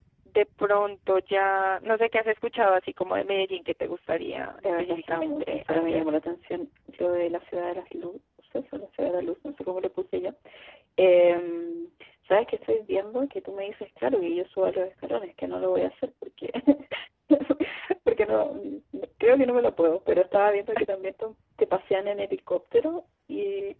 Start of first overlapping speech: 4.6 s

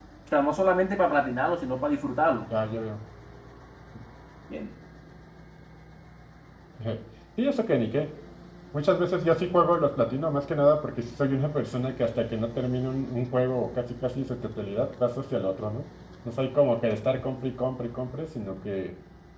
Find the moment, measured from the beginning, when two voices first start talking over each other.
none

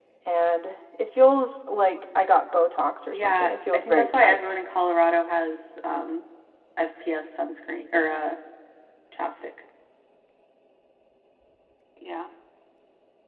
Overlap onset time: 3.1 s

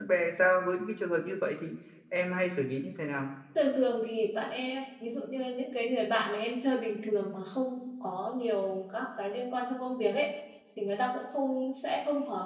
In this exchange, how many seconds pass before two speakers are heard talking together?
none

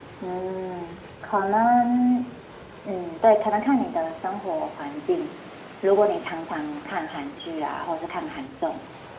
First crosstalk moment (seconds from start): none

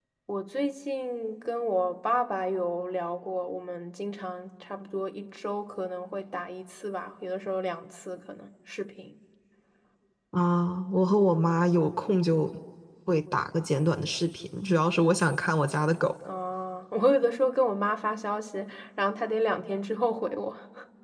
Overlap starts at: none

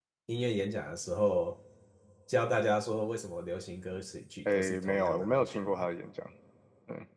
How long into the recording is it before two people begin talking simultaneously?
4.4 s

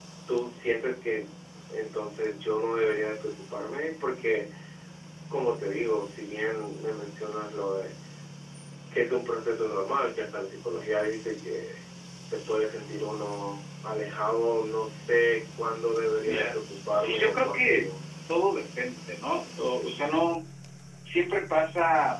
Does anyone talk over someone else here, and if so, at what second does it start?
16.2 s

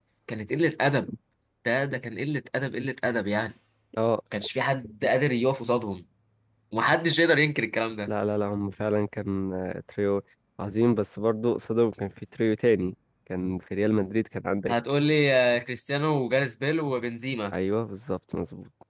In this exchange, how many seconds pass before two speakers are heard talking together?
none

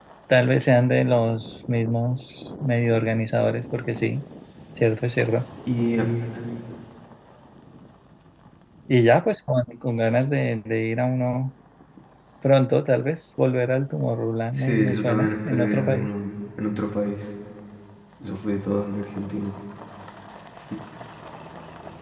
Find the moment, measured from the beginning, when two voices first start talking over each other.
14.6 s

